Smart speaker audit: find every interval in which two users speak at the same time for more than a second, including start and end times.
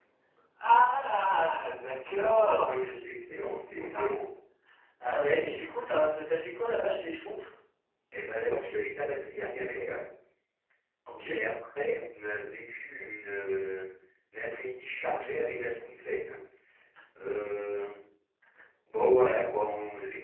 2.6-4.2

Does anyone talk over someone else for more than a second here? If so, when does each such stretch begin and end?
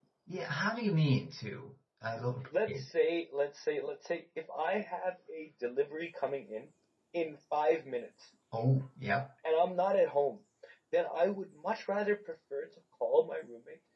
none

